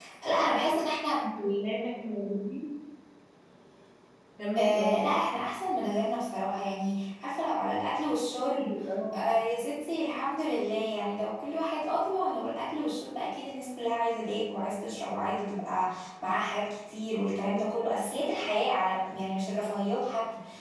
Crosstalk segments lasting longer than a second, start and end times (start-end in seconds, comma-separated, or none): none